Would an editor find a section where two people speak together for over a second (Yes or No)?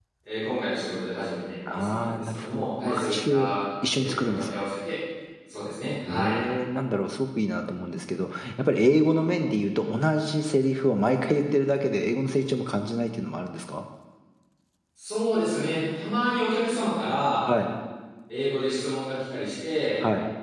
Yes